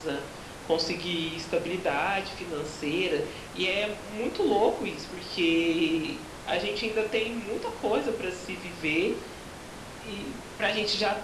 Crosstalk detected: No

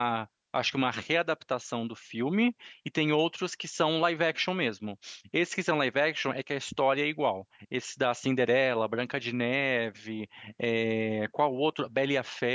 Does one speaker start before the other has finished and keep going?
No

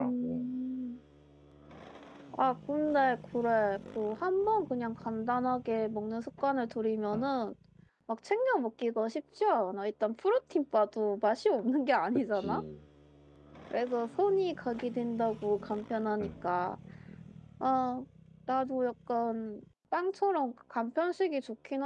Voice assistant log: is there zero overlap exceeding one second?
Yes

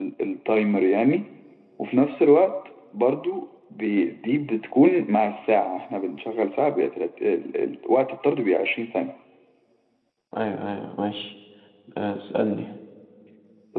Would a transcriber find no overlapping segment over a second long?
Yes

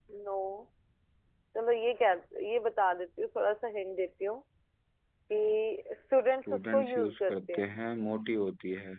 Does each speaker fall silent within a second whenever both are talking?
No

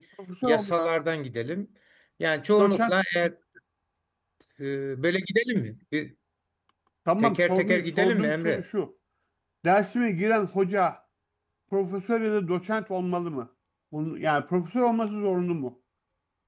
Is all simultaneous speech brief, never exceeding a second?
No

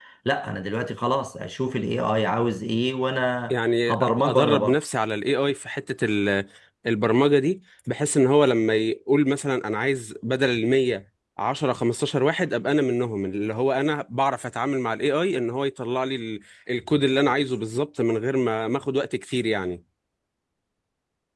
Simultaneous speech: Yes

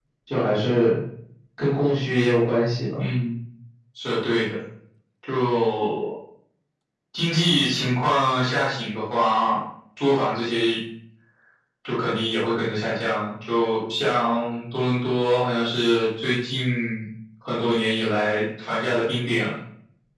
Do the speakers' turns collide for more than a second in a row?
No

